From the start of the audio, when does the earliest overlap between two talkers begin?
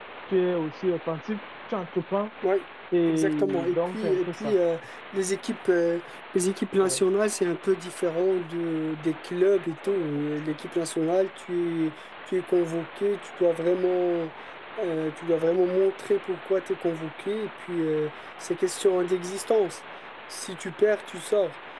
3 s

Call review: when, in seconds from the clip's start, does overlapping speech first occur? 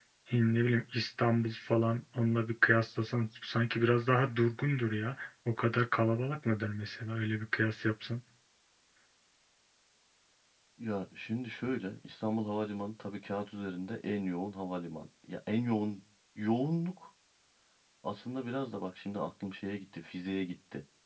none

